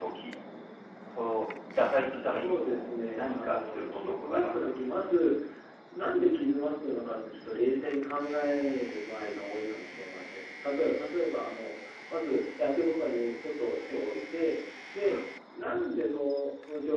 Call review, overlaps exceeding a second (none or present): present